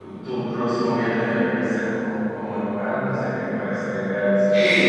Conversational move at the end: taking over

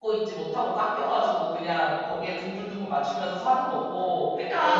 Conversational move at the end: taking over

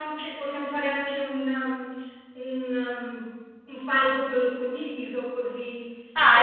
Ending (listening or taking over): listening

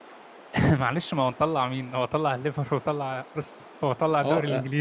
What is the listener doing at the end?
taking over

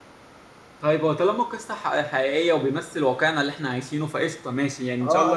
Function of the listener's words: taking over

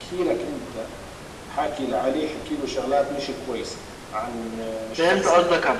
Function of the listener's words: taking over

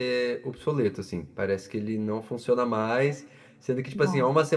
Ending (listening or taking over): listening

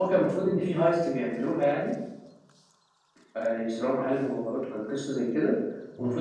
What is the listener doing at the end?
listening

